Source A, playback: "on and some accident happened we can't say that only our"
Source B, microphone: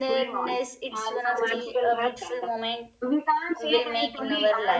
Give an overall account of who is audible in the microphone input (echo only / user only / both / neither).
both